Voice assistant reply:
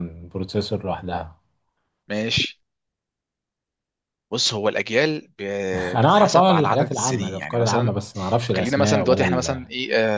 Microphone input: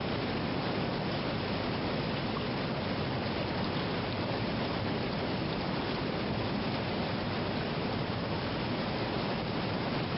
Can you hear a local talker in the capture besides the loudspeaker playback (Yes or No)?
No